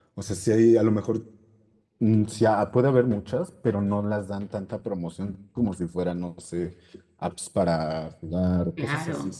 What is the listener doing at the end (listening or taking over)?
listening